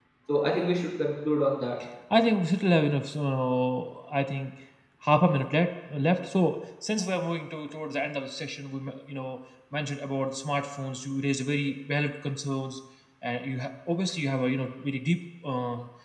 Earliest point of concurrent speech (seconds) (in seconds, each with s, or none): none